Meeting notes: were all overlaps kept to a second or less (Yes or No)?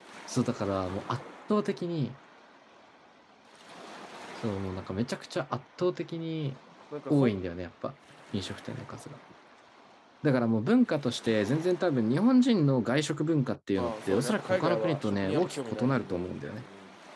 No